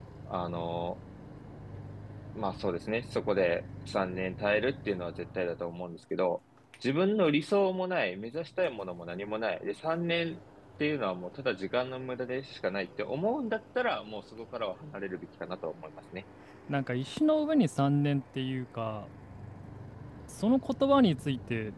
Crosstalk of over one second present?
No

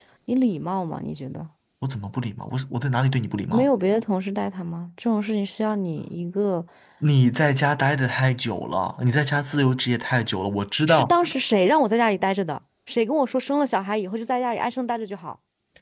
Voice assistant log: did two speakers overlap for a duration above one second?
No

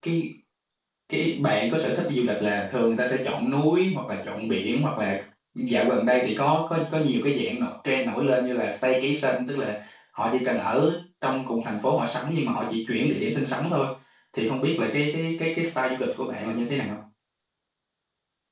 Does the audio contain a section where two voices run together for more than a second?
No

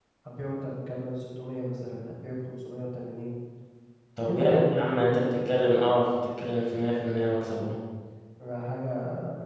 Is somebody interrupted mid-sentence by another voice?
Yes, from 4.3 s

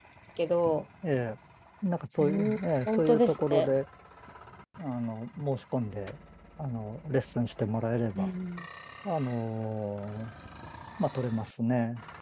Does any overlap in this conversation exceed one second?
Yes, from 2.2 s

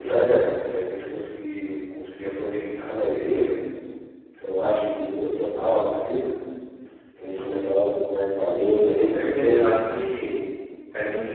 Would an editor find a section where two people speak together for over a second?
Yes, from 8.4 s

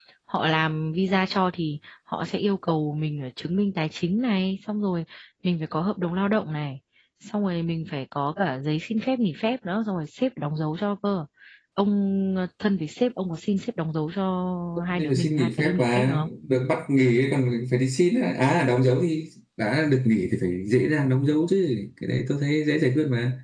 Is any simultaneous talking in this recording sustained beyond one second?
Yes, from 14.9 s

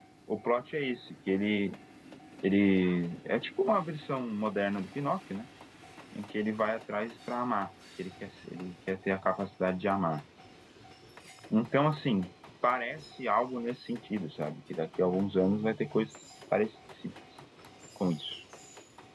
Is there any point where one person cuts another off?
No

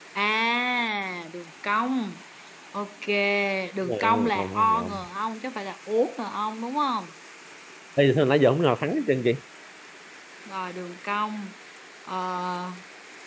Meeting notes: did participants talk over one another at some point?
Yes, from 3.8 s

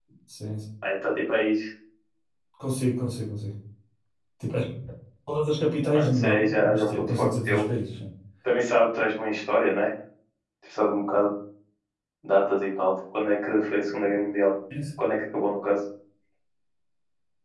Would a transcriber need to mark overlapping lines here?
Yes, from 5.9 s

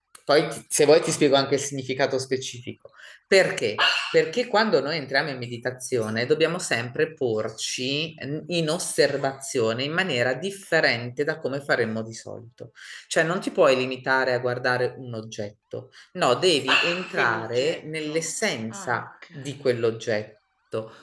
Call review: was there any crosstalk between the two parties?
Yes, from 17.1 s

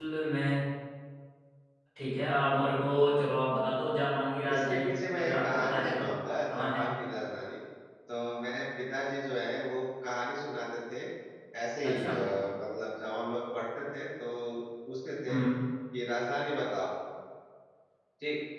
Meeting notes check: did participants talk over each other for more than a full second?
Yes, from 4.5 s

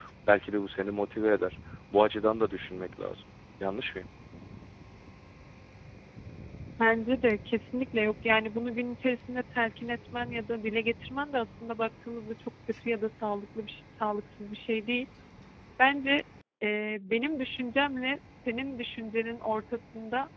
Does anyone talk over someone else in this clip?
No

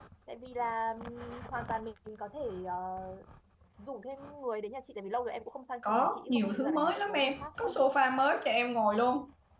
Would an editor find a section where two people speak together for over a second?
Yes, from 5.8 s

